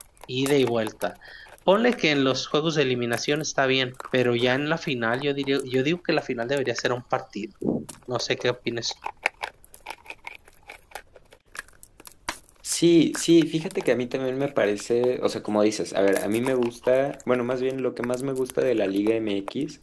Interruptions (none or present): none